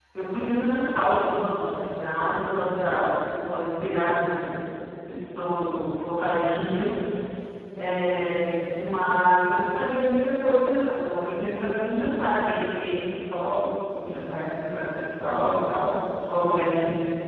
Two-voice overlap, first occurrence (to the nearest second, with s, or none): none